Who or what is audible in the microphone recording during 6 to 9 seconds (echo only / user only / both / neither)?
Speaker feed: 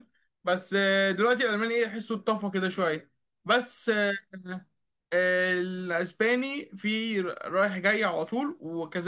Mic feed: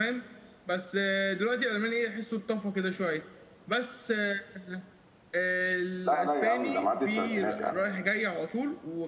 both